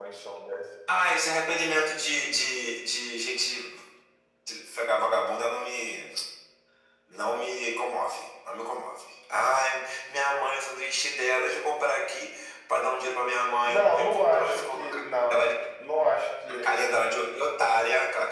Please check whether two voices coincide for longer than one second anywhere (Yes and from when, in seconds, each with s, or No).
Yes, from 13.7 s